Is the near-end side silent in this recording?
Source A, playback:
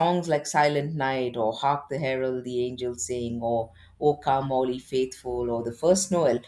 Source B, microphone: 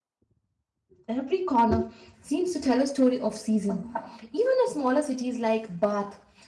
No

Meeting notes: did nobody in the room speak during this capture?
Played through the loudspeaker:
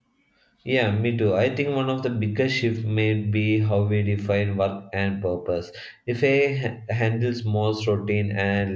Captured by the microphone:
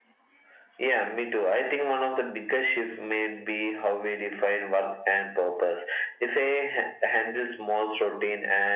Yes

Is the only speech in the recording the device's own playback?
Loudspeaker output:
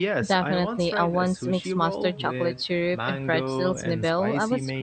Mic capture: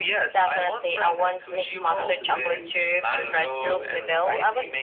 No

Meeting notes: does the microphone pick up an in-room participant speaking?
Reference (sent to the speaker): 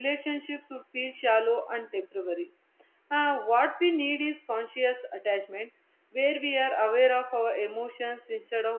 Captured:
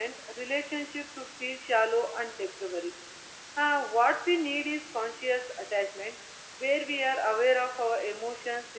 No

